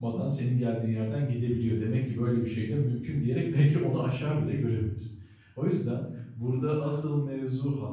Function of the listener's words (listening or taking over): listening